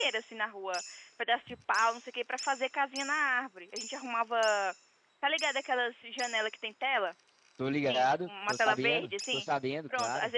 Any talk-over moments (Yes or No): Yes